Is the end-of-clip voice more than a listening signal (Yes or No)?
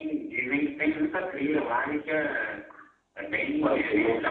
Yes